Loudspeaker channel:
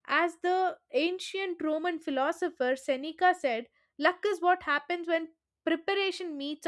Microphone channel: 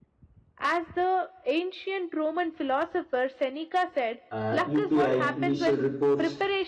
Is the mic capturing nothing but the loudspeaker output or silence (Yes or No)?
No